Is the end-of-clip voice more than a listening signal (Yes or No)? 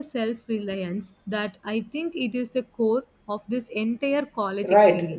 Yes